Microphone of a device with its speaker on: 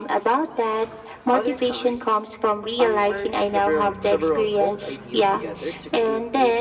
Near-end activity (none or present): none